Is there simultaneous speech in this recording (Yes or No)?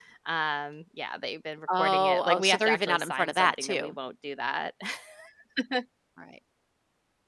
Yes